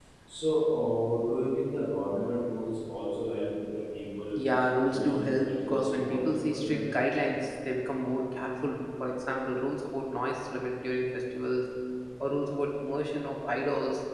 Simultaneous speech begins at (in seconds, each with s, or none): 4.9 s